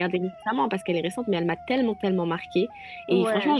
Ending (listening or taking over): listening